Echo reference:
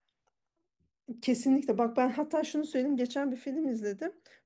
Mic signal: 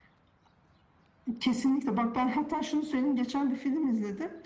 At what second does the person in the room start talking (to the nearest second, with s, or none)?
none